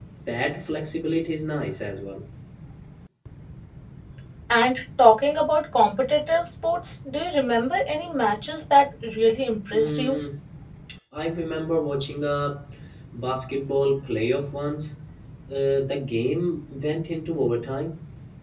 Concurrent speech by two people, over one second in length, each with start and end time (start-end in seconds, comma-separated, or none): none